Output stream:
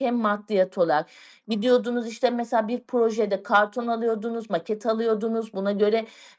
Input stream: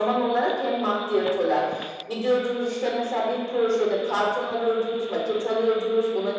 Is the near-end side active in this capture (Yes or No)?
No